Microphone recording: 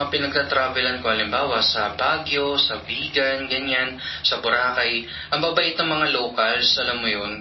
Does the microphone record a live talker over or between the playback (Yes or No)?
No